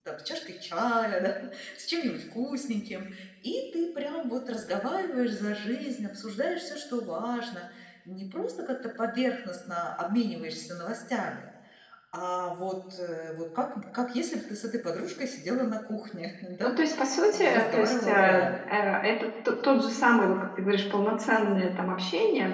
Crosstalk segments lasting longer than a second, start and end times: 17.3-18.6

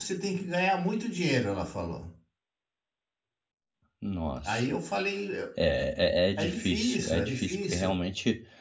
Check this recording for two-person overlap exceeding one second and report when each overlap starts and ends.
6.4-7.9

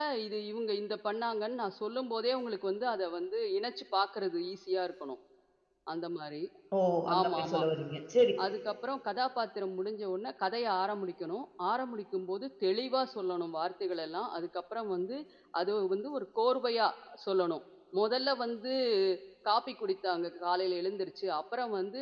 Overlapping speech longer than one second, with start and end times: none

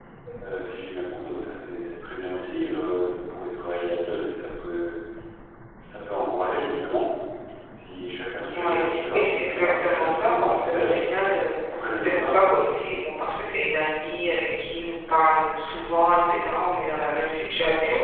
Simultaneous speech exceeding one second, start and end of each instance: 8.5-10.9

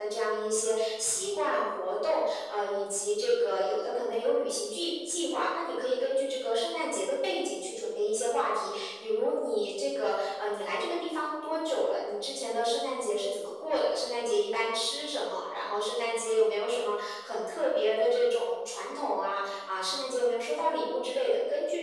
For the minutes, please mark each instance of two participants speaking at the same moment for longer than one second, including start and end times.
none

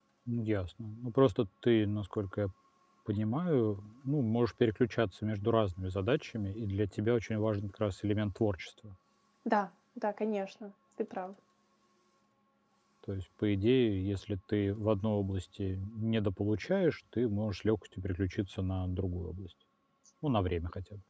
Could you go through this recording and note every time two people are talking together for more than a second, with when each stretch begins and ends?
none

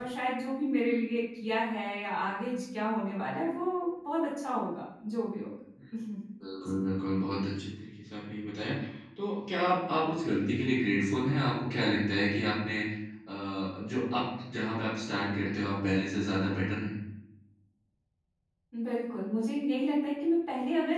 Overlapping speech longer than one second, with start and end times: none

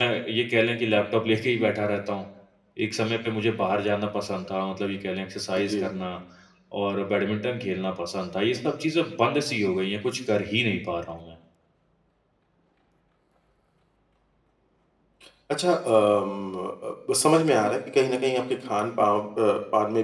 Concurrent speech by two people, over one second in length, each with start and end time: none

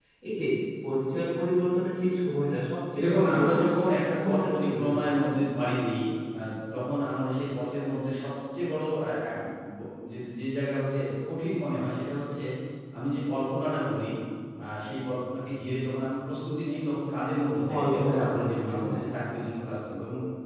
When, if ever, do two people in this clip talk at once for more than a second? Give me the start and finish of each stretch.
3.0-5.2, 17.7-19.0

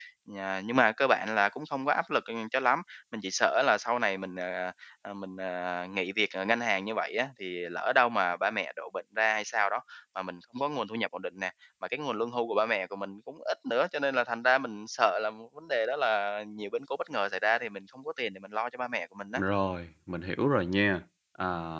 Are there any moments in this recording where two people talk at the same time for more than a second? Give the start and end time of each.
none

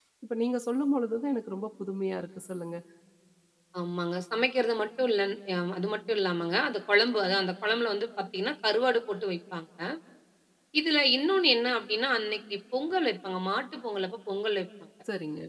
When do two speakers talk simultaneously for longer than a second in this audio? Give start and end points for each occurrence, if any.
none

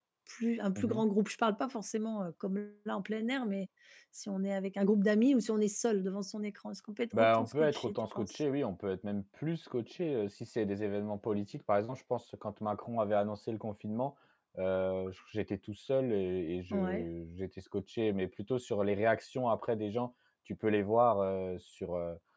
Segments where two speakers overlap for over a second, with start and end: 7.2-8.4

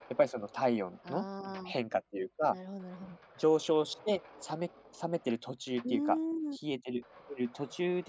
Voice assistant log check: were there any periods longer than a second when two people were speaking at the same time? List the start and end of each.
none

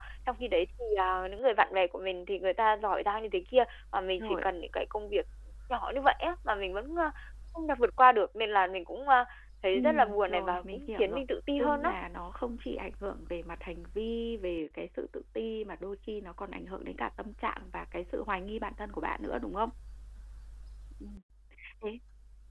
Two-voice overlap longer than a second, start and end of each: 9.7-11.2

